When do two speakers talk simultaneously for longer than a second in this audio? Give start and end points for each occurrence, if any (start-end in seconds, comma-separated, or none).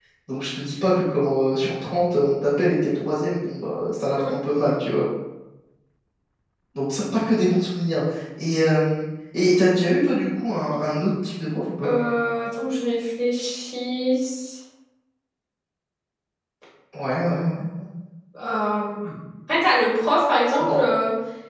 none